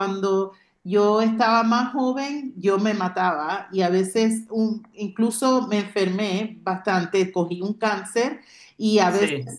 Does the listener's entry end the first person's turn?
No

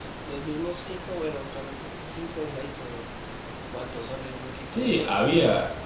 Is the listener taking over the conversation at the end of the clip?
Yes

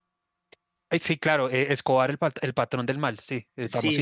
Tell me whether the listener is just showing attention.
No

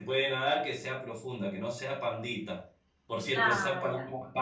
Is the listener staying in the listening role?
Yes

